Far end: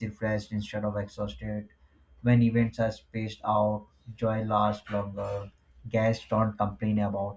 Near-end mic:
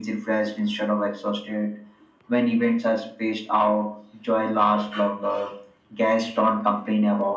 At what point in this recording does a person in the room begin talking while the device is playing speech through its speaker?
none

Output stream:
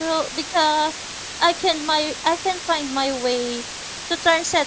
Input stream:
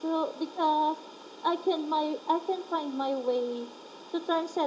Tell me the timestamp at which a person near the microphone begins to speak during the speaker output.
none

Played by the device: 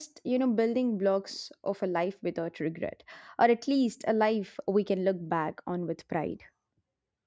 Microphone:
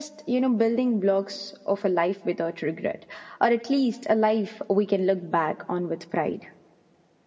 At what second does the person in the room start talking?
none

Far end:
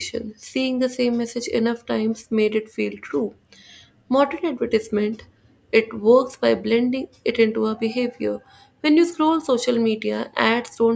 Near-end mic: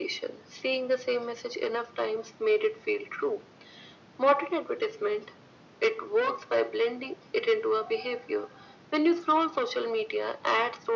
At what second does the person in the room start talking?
none

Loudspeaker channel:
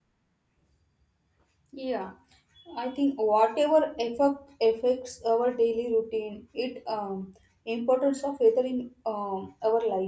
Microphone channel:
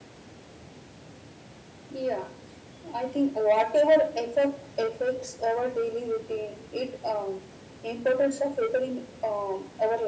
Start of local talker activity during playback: none

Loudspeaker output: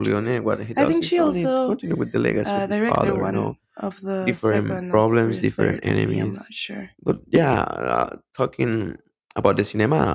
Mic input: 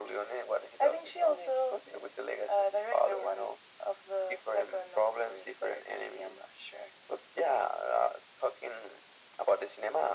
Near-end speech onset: none

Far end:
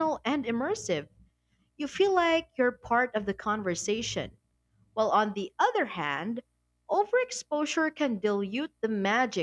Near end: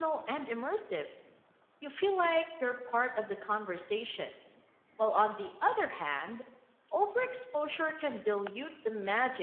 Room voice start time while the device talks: none

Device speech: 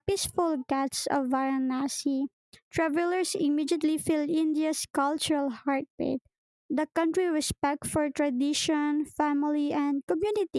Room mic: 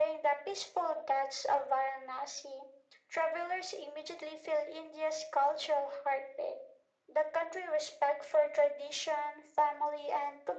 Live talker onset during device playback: none

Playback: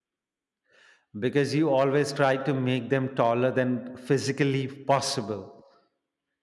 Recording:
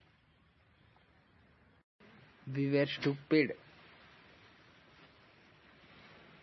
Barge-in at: 2 s

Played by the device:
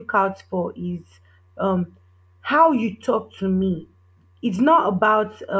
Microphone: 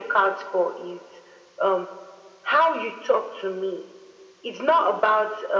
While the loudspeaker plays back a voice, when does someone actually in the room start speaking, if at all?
none

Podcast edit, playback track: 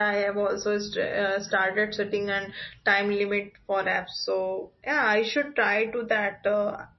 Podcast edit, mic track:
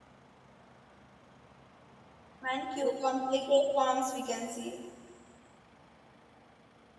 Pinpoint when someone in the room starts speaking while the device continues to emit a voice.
2 s

